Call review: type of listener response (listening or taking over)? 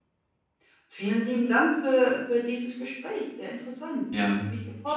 taking over